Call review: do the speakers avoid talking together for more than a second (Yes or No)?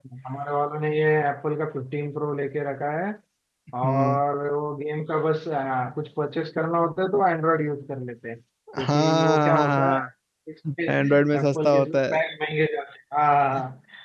No